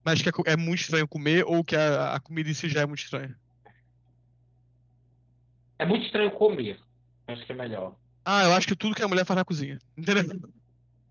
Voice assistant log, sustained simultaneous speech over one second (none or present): none